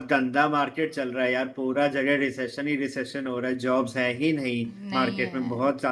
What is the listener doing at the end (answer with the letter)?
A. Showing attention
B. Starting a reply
A